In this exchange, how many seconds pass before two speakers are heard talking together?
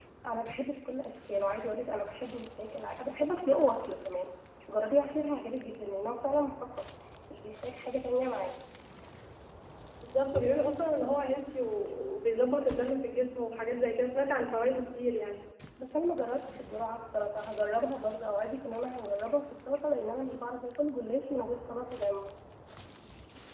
none

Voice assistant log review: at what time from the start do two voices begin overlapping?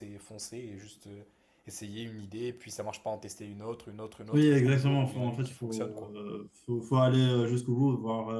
4 s

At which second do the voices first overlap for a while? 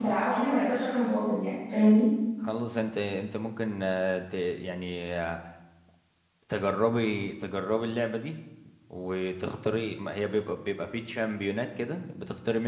none

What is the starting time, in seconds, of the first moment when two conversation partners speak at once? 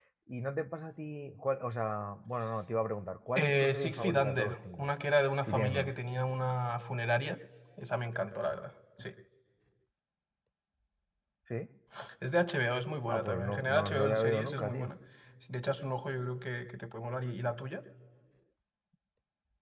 3 s

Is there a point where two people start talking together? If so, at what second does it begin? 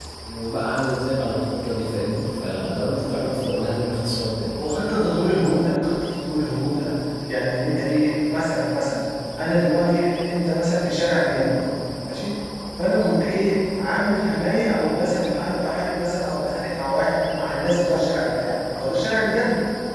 none

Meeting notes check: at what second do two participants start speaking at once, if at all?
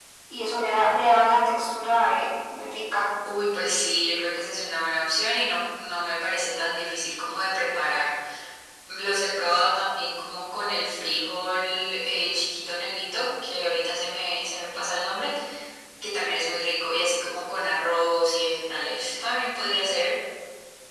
none

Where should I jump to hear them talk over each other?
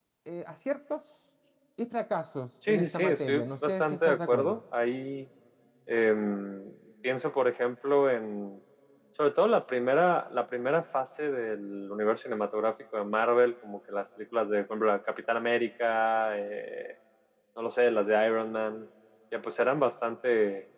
3 s

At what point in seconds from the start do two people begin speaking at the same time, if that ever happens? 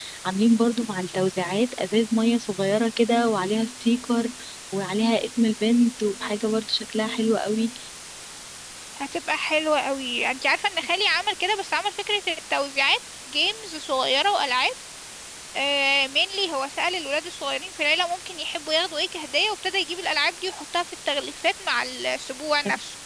none

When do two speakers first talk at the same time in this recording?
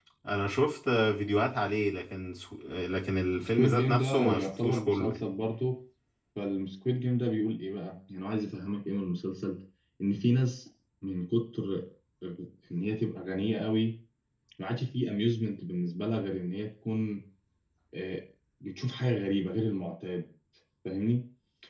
3 s

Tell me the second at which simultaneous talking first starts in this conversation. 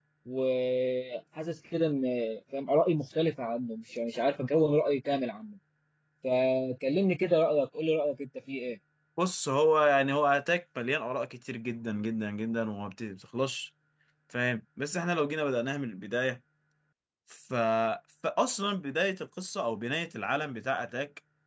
none

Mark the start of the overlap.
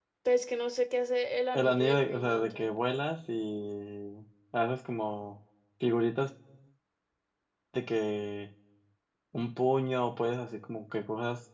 2 s

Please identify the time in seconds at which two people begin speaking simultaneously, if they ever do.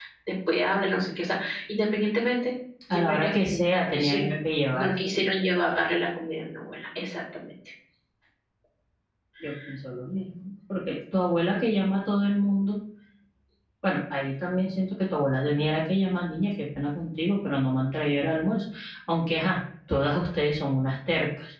3 s

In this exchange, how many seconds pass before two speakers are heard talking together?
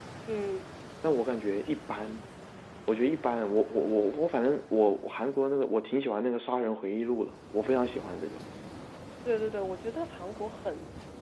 none

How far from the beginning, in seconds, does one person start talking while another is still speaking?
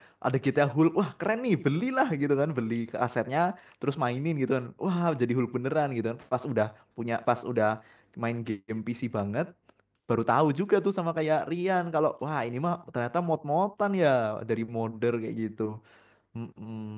none

